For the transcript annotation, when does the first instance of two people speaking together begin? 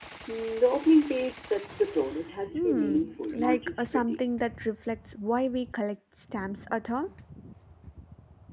2.5 s

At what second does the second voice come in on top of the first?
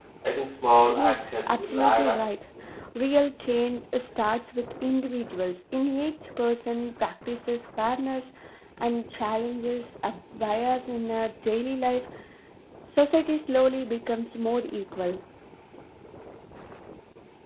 0.9 s

